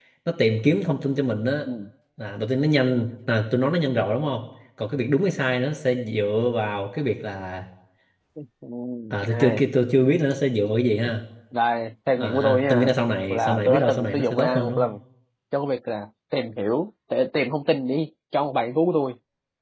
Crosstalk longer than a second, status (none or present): present